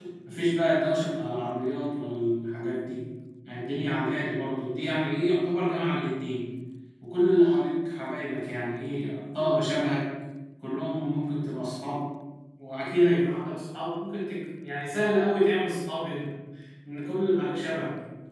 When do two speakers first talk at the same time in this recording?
none

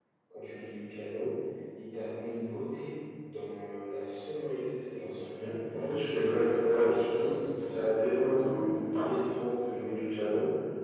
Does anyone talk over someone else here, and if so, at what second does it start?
6 s

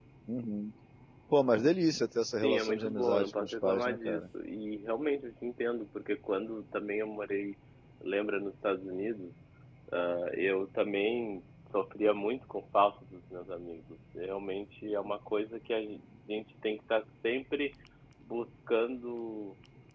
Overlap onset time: 2 s

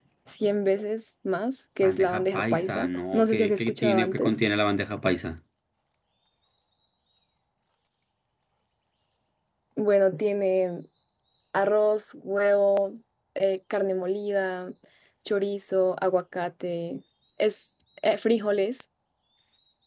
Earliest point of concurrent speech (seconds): 2 s

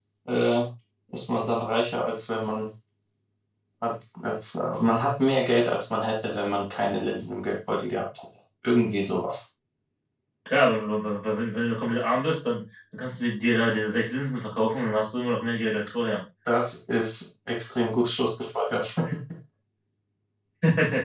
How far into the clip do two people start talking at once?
none

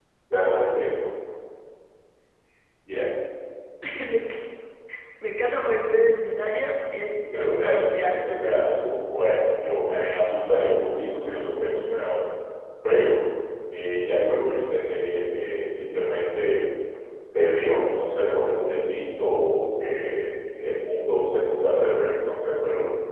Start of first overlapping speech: 7 s

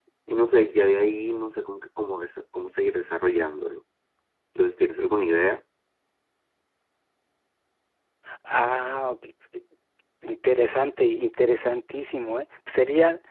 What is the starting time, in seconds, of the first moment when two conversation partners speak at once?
none

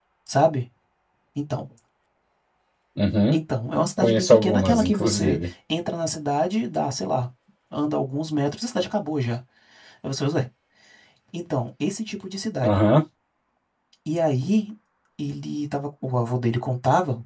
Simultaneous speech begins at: 4 s

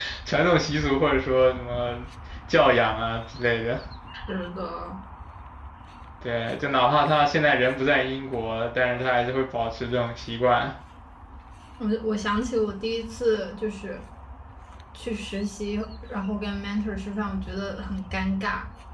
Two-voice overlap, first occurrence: none

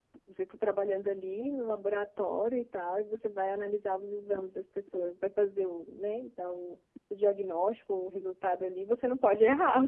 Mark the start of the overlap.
none

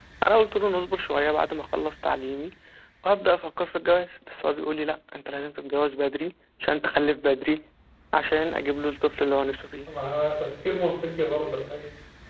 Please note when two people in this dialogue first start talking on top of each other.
none

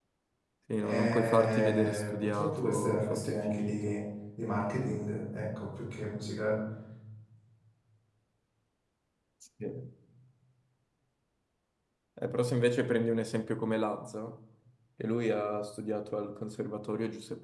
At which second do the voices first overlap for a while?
1 s

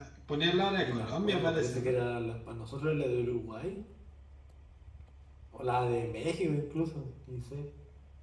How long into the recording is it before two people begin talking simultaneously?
1 s

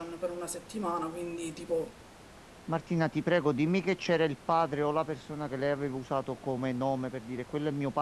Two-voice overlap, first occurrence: none

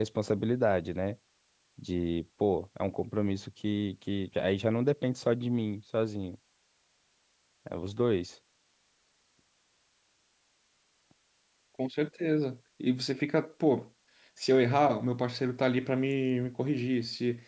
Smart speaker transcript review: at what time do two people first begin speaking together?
none

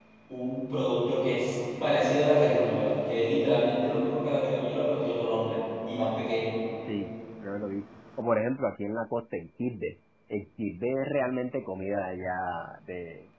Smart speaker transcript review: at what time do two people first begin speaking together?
none

